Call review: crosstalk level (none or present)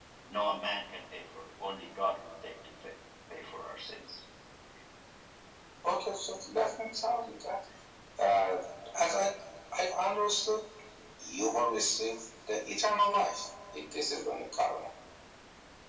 none